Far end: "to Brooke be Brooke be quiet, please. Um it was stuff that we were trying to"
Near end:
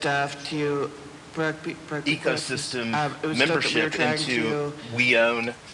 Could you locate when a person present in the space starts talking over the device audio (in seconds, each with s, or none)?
2.1 s